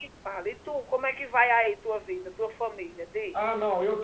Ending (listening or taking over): taking over